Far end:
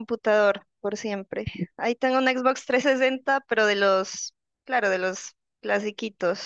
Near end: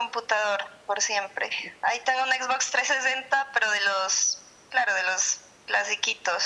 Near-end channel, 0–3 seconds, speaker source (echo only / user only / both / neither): echo only